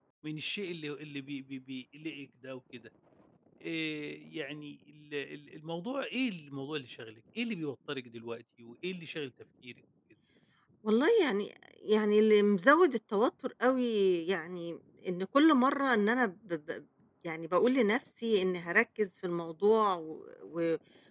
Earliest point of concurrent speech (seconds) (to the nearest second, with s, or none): none